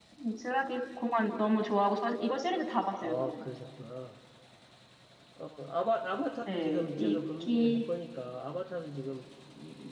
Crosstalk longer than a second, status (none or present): present